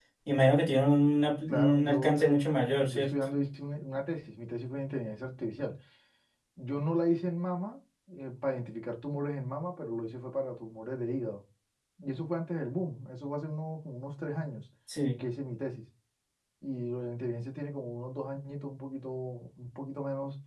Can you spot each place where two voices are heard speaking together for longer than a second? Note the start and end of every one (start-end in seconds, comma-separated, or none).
1.5-3.1